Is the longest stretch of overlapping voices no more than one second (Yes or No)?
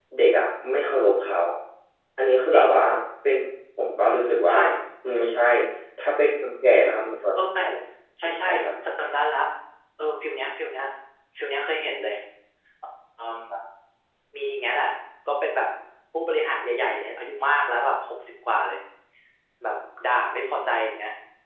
Yes